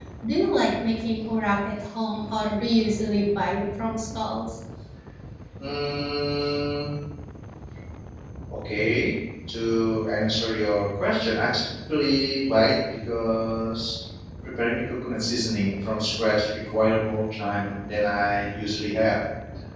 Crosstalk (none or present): none